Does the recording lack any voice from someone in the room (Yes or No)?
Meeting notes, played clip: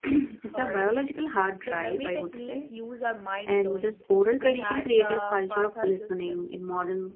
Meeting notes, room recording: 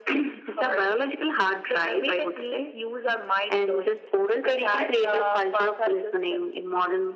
Yes